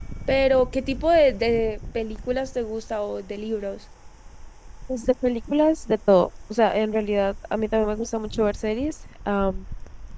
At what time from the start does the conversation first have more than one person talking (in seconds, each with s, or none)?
none